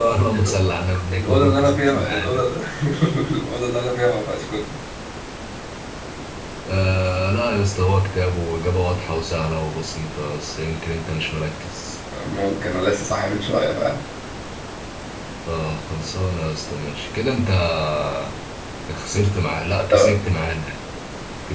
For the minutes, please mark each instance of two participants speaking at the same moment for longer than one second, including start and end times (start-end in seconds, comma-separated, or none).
1.1-2.4